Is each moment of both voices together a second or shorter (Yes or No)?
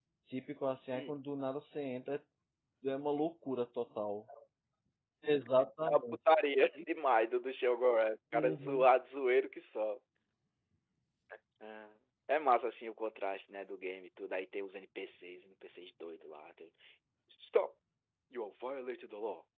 Yes